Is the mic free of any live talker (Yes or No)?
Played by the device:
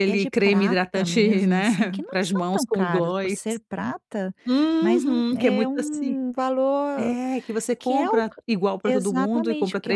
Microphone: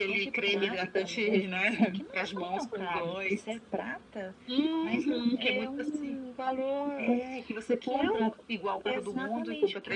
Yes